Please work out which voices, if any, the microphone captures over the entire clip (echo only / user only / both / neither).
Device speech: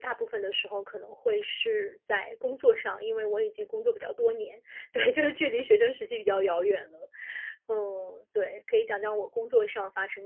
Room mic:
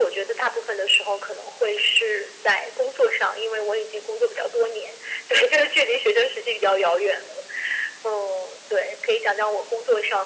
echo only